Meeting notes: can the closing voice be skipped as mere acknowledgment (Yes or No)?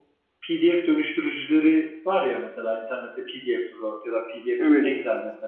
Yes